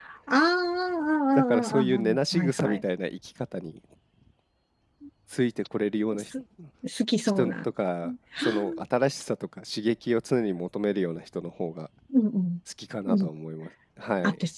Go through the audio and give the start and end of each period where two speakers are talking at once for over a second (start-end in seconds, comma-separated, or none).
1.4-2.8